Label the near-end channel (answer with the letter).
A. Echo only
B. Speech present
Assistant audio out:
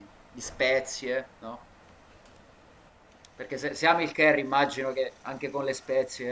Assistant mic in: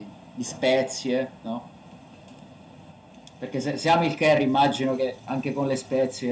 A